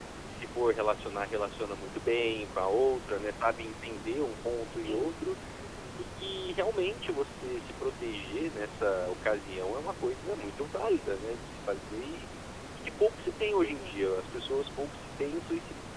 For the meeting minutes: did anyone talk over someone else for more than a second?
No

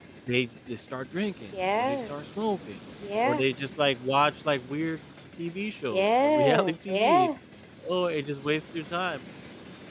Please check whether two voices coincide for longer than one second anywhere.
Yes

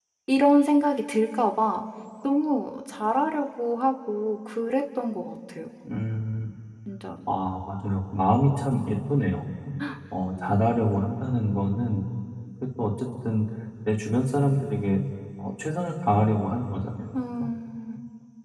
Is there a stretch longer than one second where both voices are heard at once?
No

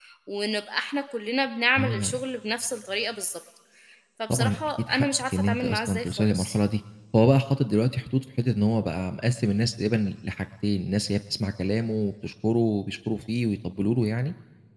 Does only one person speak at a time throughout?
No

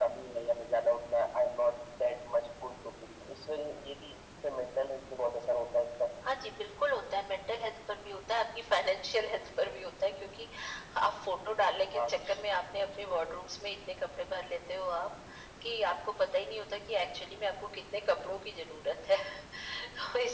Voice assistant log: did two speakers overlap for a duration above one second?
No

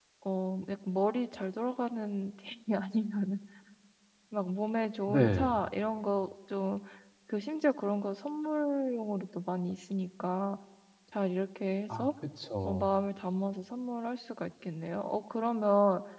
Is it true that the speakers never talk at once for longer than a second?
Yes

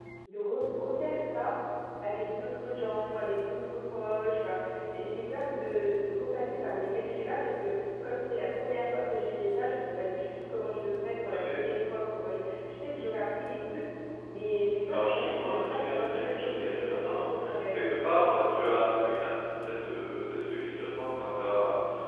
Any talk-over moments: Yes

